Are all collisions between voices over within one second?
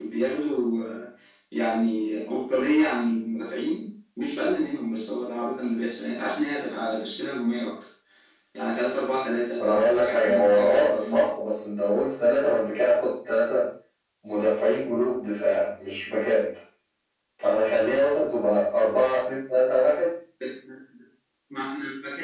No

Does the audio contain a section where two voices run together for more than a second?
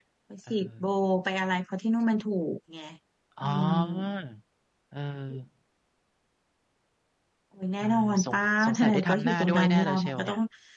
Yes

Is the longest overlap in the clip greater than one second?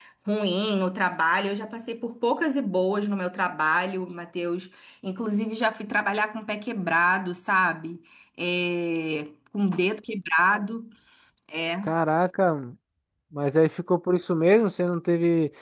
No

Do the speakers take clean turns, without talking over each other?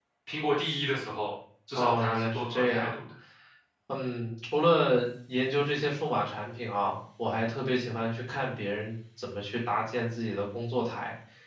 No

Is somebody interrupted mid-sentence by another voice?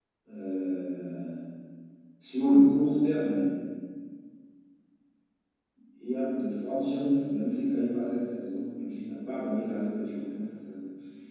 No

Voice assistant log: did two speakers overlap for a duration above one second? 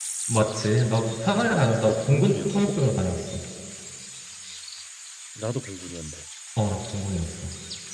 Yes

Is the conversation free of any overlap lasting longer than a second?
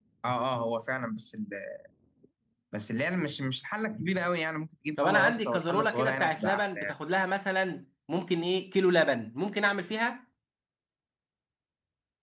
No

